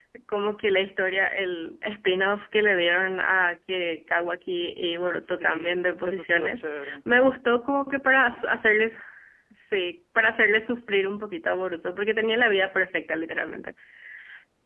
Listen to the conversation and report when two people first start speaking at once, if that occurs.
5.4 s

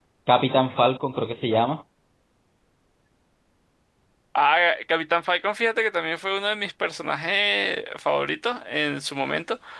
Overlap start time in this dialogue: none

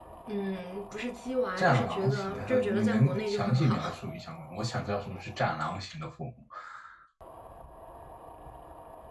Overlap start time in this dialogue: 1.6 s

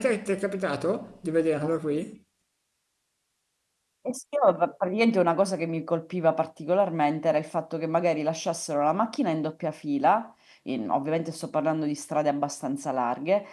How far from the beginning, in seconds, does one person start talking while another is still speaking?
none

